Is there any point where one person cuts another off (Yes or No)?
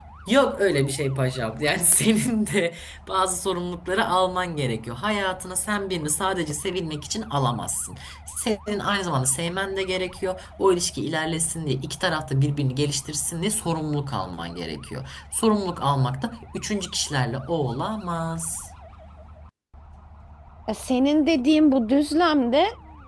No